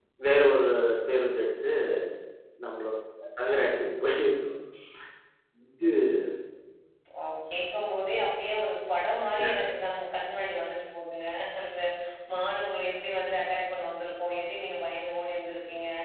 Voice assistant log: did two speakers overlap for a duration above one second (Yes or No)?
No